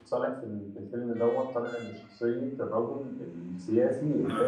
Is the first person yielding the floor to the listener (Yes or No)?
Yes